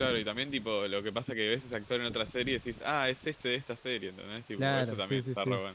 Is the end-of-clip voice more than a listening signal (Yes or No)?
Yes